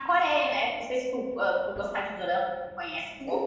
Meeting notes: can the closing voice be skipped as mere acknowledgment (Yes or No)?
No